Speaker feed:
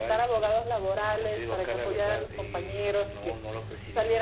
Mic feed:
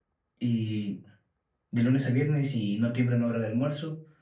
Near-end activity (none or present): present